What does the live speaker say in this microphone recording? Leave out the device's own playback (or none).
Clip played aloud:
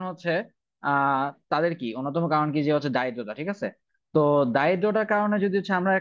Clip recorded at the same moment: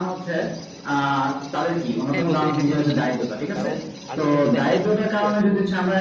হ্যাঁ বন্ধু এটা কিন্তু ঠিকই বলছো কারণ আলটিমেটলি দেখা যাচ্ছে কি এখন